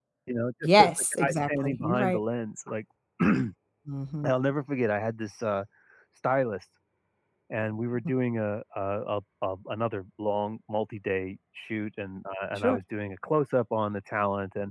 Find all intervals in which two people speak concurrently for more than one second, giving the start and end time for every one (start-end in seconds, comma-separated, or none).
0.8-2.2